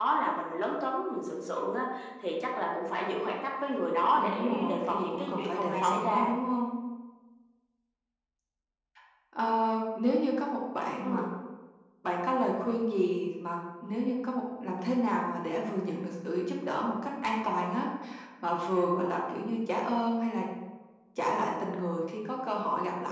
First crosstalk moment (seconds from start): 4 s

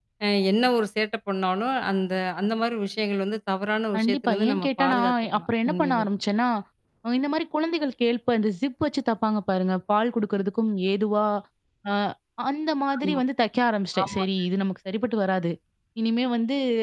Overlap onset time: 4 s

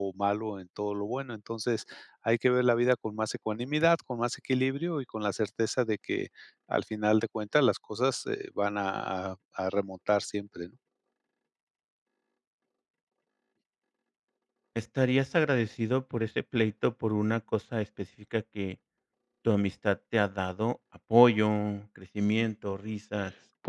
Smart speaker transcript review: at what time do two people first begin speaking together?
none

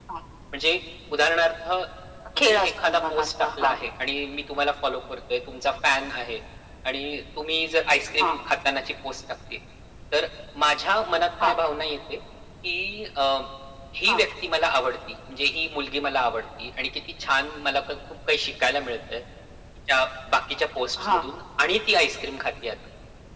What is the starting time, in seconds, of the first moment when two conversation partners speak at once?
2 s

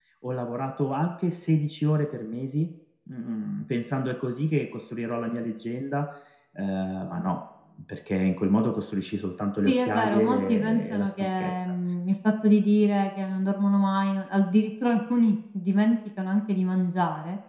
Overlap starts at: 10 s

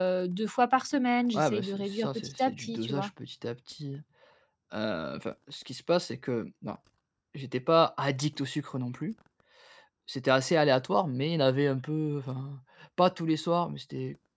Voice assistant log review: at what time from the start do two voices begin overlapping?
1 s

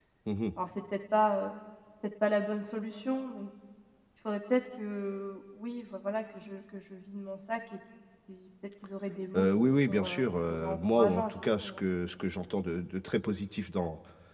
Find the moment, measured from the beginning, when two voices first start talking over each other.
9 s

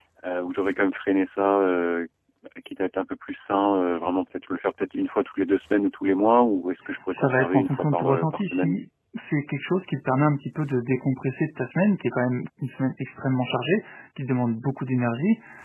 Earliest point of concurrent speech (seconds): 7 s

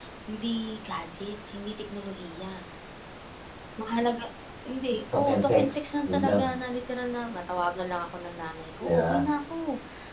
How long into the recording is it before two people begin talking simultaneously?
5 s

